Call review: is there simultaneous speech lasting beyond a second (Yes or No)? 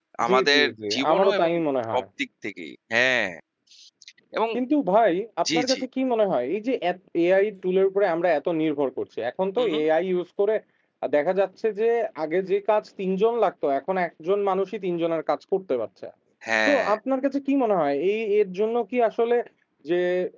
Yes